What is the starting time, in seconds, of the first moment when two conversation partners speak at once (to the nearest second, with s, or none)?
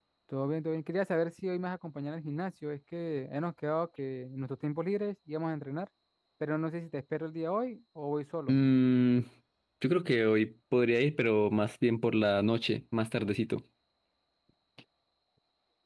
none